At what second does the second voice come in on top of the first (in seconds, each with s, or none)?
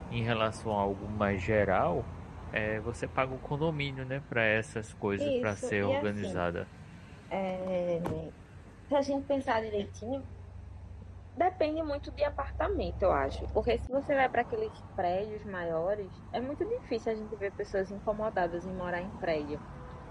5.2 s